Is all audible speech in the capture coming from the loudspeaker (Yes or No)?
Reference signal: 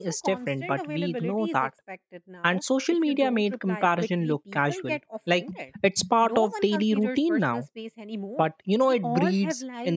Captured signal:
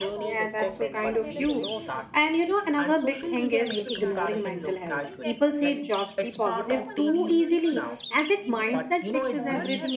No